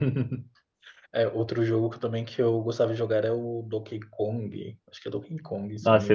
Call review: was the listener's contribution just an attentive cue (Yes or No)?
No